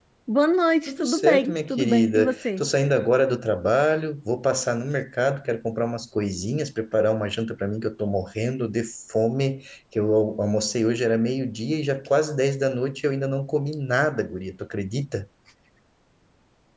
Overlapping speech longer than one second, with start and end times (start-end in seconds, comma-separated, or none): 0.9-2.6